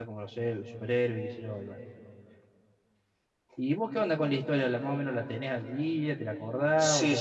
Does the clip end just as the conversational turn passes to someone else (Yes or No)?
Yes